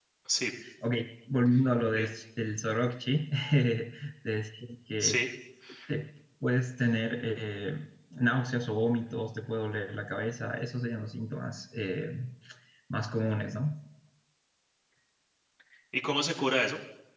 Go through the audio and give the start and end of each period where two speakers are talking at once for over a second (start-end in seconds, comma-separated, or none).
none